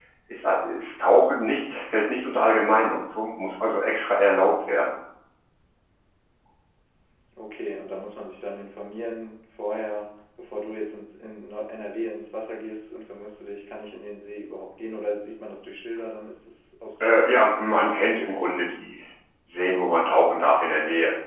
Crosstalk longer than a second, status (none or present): none